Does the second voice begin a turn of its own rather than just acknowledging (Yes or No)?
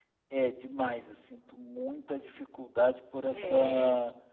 No